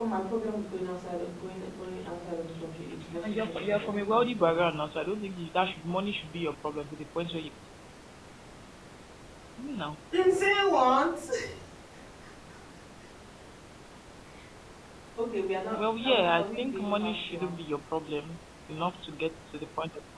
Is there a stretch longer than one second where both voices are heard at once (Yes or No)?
Yes